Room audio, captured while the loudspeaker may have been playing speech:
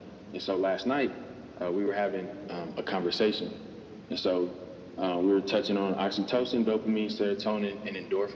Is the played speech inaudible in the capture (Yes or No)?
No